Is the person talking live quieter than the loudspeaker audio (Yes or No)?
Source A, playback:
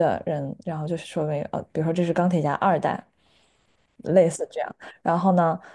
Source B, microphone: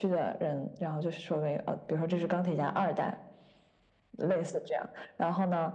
Yes